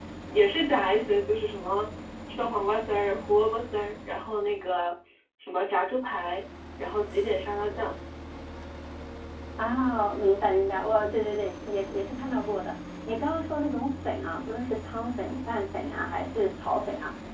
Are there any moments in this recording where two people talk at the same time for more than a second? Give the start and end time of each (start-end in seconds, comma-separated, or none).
none